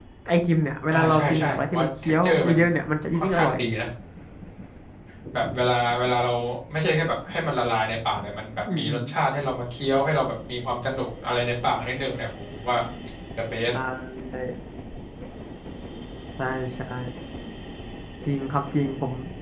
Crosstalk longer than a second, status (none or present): present